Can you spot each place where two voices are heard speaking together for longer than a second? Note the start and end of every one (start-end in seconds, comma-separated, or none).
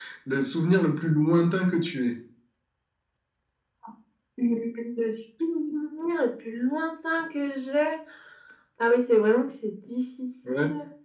none